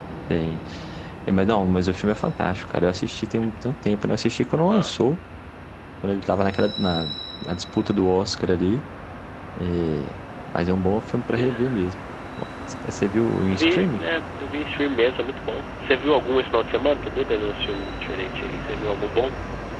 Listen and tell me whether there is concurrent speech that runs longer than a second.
No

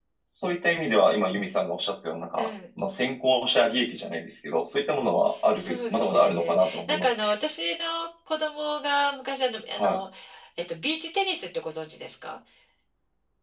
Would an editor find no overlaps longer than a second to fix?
No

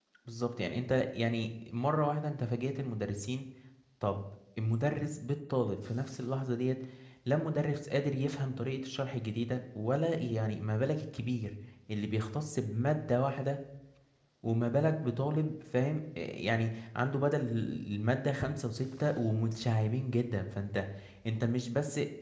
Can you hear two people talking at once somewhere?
No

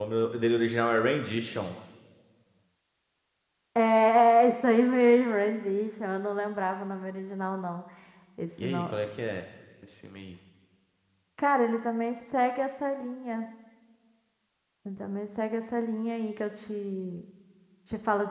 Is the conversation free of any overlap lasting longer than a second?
Yes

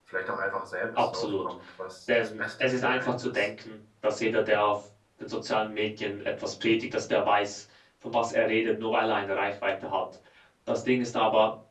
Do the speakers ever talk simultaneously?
Yes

